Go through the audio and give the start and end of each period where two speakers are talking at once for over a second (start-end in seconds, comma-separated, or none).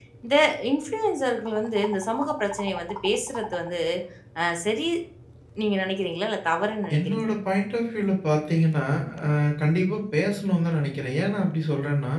none